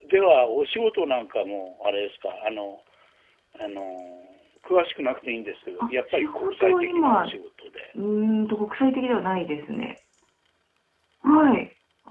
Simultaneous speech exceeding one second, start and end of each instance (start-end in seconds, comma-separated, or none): 5.8-7.4